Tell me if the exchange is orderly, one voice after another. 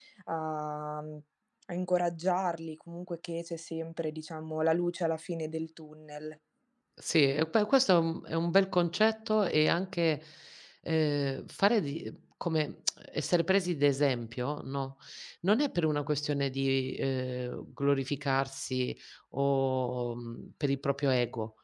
Yes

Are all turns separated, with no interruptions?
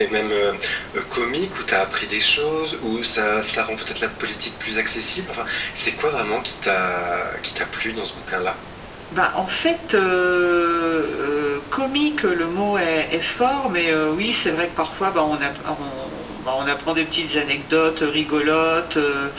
Yes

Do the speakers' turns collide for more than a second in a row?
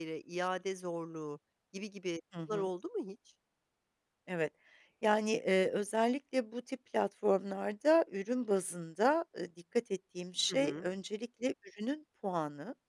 No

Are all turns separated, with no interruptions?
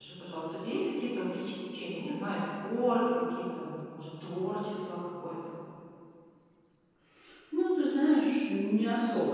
Yes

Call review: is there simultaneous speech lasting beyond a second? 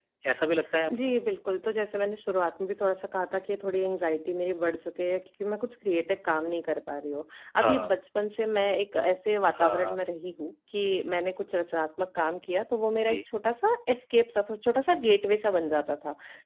No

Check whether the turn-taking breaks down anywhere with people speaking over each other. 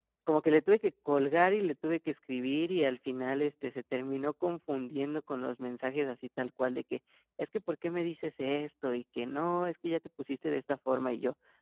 No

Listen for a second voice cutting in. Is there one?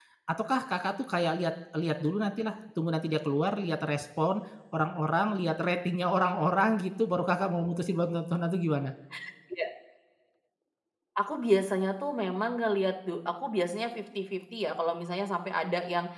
No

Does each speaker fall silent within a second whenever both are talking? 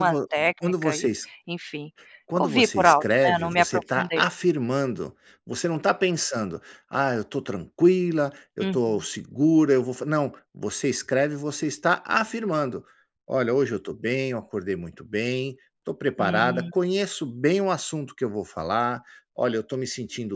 No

